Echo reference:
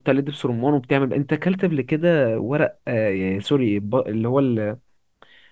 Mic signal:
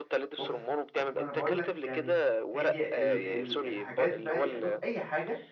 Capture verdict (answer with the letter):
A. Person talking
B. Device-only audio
A